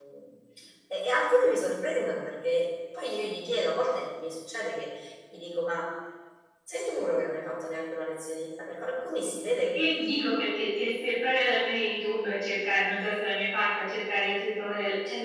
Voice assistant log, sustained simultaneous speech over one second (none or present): none